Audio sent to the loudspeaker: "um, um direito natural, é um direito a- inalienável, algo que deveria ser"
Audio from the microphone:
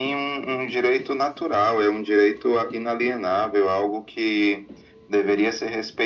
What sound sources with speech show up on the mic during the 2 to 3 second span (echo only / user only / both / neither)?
echo only